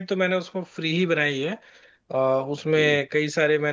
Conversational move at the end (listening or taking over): listening